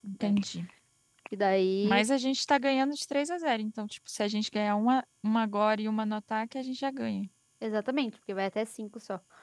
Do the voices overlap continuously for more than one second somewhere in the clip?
No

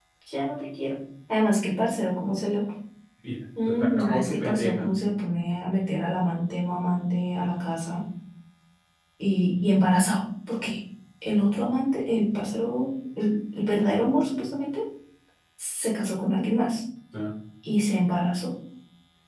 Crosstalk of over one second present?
Yes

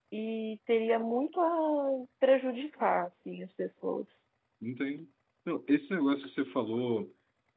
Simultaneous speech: No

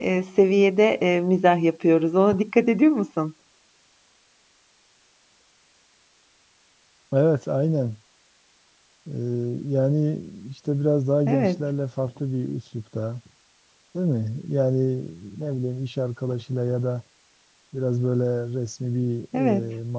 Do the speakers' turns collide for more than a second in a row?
No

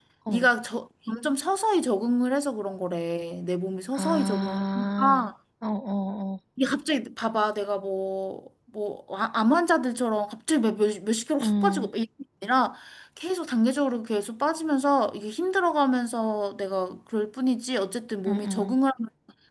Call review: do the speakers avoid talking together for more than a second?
No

